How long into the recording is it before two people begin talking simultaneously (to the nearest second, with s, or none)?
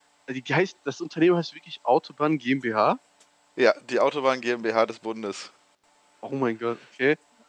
none